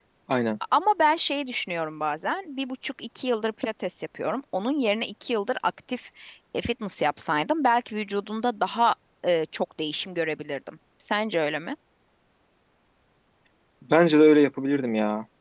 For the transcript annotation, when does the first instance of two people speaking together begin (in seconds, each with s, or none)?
none